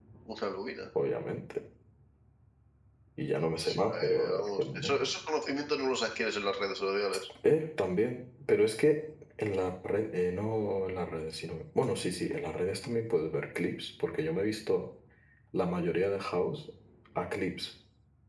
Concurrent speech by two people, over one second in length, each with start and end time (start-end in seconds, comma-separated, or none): 3.7-5.1